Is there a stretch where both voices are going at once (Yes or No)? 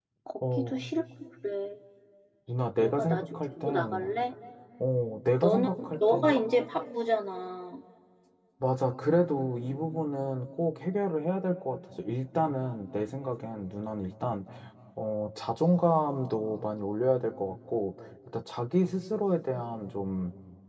Yes